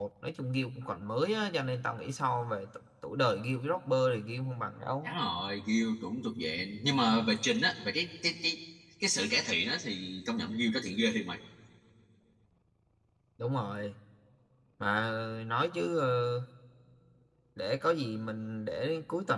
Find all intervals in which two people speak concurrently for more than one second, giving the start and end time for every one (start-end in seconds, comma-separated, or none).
none